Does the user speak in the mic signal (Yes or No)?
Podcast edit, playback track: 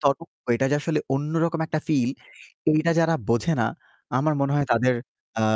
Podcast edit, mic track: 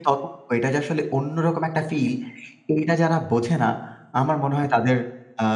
No